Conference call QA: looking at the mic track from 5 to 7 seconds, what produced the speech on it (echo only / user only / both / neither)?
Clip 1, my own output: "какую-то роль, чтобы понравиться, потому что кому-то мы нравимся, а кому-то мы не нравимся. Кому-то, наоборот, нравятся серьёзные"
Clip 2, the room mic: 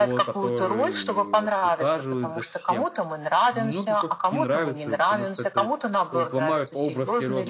both